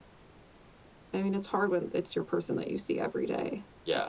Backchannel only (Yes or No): No